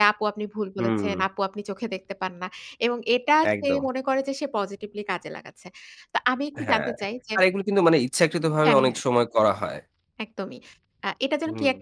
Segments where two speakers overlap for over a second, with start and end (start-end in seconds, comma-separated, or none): none